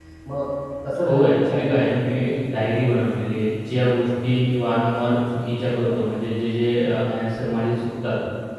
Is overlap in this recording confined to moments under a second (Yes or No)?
No